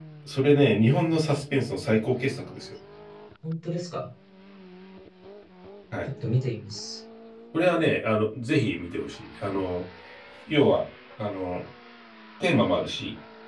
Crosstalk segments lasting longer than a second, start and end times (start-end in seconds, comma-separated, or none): none